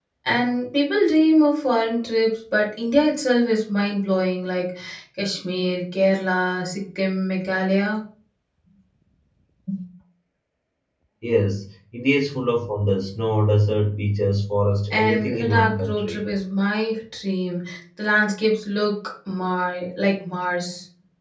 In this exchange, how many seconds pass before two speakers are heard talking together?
14.9 s

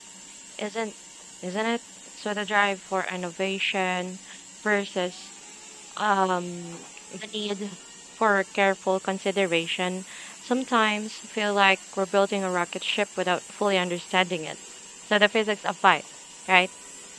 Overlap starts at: none

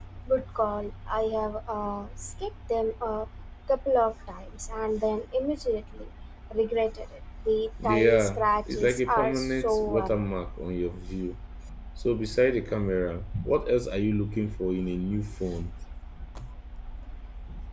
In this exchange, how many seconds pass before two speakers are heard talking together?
7.8 s

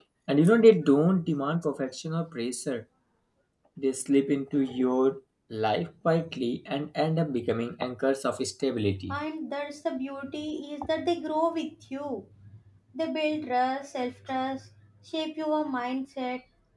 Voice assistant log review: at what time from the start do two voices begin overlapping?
none

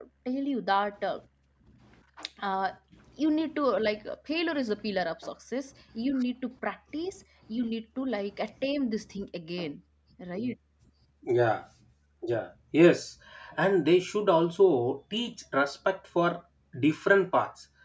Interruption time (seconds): none

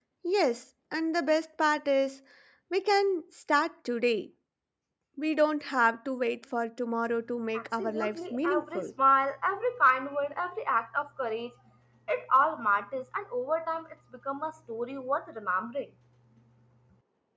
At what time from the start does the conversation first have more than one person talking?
7.5 s

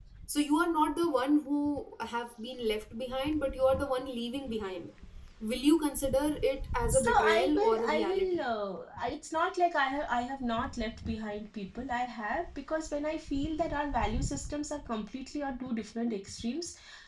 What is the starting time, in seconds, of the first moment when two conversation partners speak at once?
6.9 s

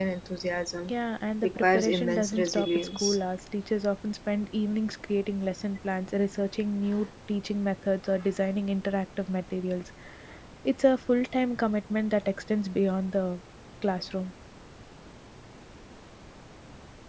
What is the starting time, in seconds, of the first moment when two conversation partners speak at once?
1.4 s

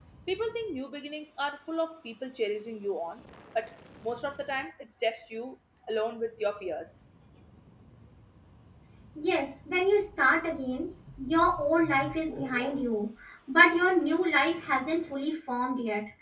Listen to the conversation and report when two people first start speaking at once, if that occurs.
none

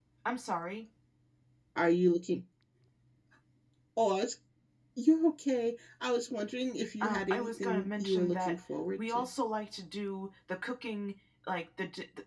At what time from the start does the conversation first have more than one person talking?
7.0 s

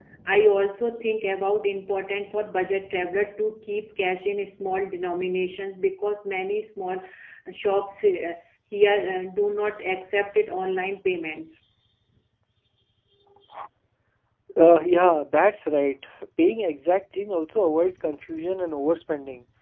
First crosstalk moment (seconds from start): none

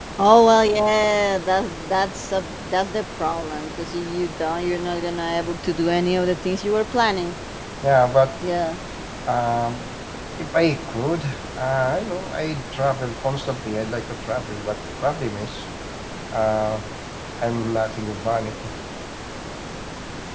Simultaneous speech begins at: none

